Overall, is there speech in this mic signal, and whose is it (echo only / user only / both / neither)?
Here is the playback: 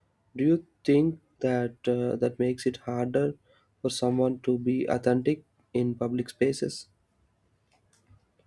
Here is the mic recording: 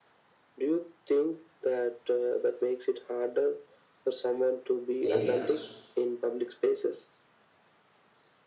both